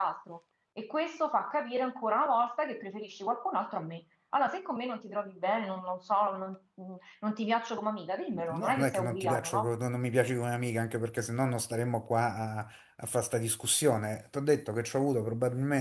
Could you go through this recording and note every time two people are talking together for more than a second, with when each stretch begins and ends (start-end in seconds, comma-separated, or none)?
8.3-9.7